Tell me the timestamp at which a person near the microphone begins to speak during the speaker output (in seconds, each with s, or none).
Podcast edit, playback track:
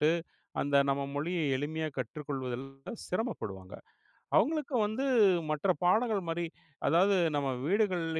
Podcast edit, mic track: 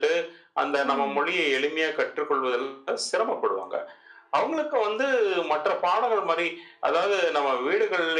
0.8 s